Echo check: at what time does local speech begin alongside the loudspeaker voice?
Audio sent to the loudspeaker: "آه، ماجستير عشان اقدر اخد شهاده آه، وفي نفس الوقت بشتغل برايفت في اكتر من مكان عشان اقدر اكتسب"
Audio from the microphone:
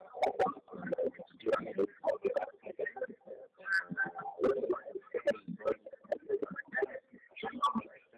none

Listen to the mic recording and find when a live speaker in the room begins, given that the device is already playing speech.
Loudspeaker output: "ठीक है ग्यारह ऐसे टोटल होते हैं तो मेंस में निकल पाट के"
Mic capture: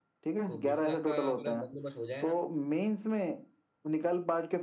0.5 s

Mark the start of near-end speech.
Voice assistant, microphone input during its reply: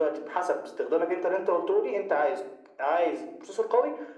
none

